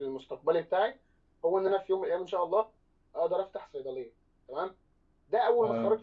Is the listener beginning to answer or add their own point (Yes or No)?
No